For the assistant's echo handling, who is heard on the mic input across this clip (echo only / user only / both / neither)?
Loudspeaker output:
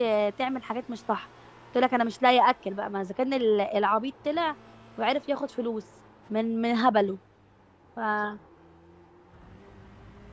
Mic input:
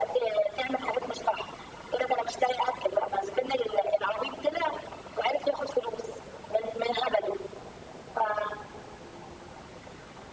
echo only